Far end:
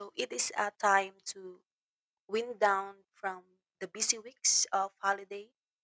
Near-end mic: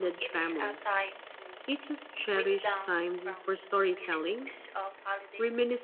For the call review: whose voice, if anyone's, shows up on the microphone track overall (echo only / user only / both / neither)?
both